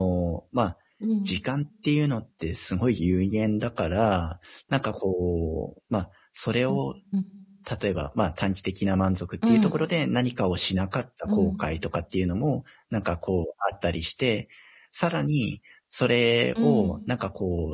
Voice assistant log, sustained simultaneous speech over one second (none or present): none